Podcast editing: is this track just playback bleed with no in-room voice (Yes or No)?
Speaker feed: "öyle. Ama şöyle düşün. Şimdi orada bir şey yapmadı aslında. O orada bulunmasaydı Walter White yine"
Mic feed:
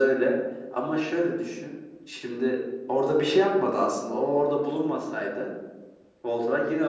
Yes